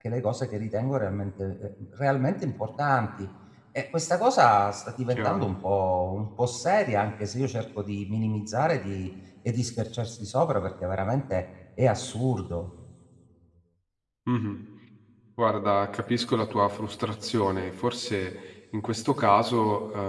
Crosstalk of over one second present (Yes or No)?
No